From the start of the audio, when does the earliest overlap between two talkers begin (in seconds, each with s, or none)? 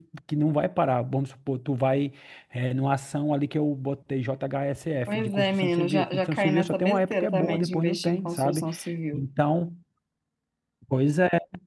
5.1 s